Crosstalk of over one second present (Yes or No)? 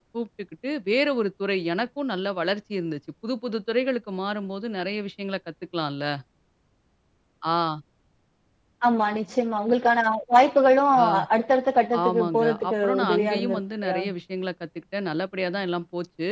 Yes